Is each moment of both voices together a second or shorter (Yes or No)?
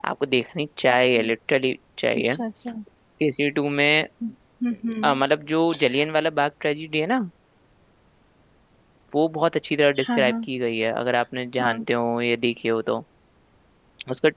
Yes